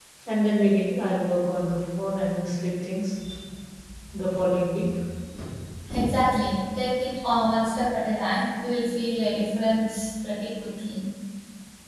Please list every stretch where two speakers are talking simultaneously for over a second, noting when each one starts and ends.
none

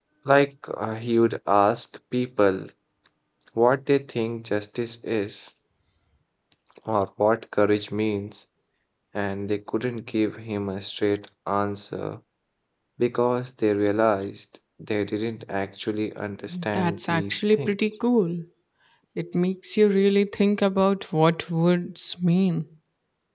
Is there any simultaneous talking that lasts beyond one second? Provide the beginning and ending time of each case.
16.7-17.9

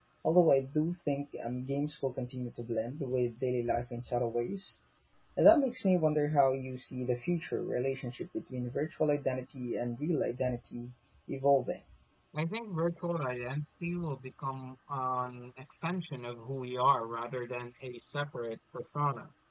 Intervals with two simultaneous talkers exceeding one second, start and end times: none

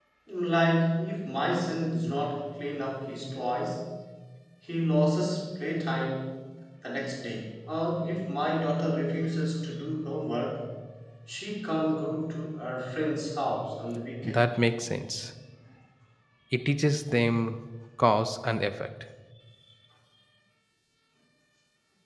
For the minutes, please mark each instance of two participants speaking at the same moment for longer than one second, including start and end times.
none

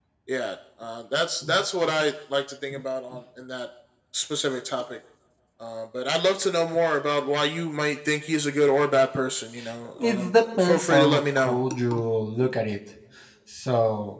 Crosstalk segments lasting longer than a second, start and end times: 10.0-11.6

